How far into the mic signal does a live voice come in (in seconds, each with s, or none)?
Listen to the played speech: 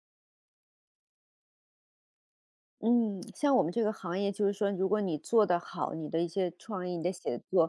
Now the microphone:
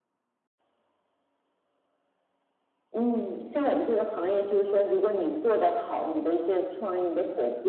none